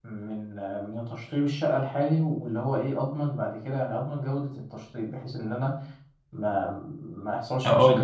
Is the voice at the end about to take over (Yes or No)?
No